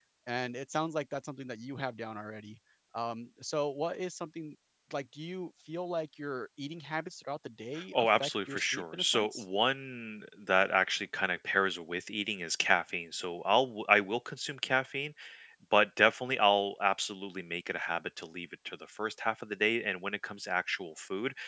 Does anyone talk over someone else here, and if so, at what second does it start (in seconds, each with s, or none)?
7.8 s